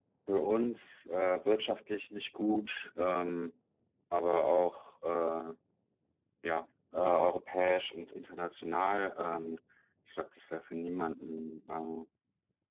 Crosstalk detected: No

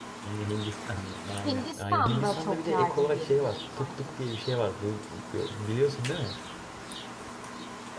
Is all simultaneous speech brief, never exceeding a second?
No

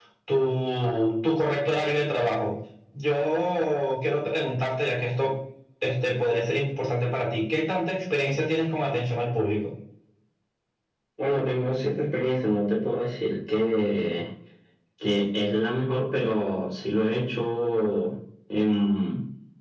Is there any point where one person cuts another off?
No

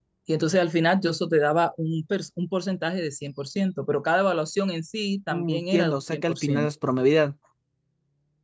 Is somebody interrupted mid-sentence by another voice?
Yes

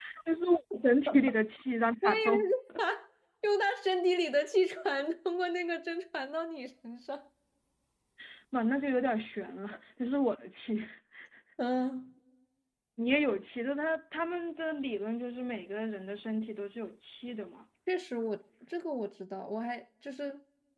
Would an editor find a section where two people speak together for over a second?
No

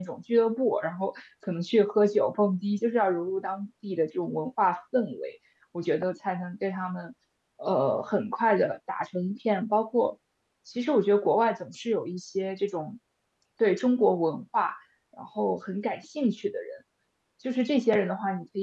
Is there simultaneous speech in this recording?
No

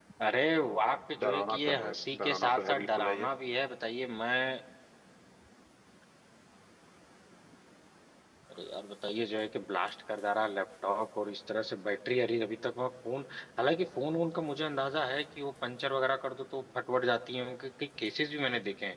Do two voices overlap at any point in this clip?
Yes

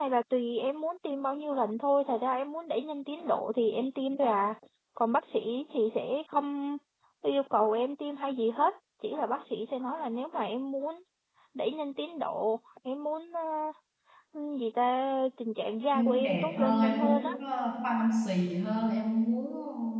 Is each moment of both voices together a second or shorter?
No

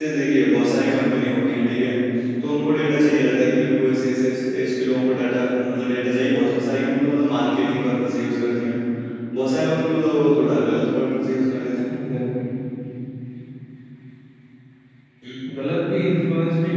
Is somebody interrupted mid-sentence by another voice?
No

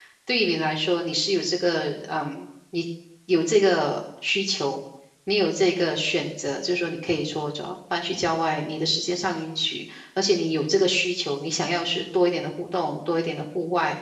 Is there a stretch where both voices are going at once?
No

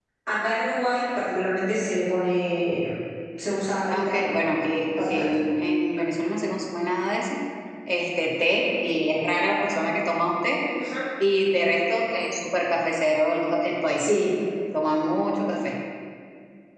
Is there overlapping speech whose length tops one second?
No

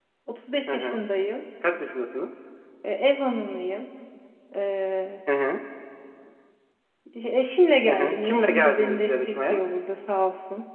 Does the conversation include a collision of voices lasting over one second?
Yes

